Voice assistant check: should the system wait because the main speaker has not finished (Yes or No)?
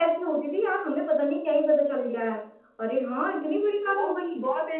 No